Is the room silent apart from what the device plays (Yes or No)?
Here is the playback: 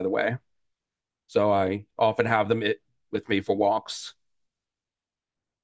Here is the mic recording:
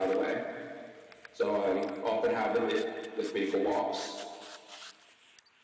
Yes